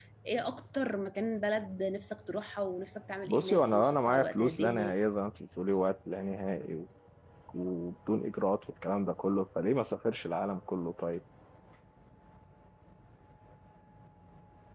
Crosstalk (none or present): present